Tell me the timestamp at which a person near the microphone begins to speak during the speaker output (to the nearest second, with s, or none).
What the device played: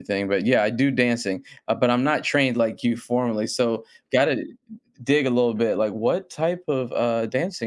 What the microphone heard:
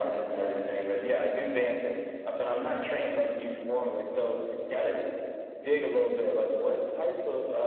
none